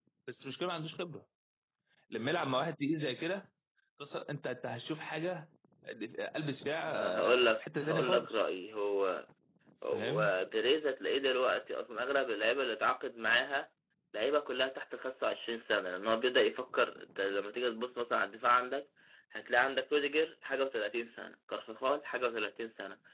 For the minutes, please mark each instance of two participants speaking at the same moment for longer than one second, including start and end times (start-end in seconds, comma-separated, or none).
6.9-8.4